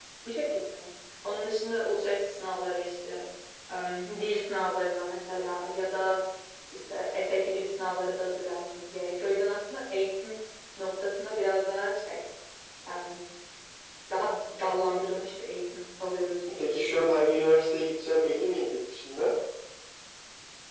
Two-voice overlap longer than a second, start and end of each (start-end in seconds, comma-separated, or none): none